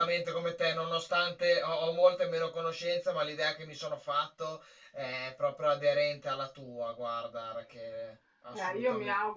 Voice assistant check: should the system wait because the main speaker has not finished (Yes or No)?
No